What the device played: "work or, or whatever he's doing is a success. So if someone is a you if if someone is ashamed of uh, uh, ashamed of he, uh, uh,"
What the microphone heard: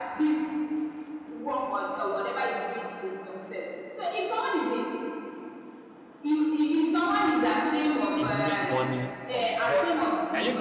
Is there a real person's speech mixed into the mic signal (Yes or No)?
Yes